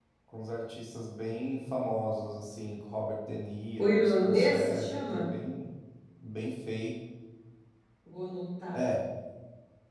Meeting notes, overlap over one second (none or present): present